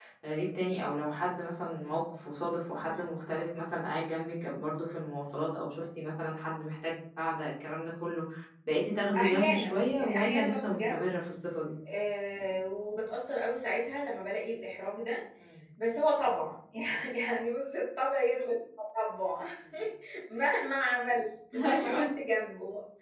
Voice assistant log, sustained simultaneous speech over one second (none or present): present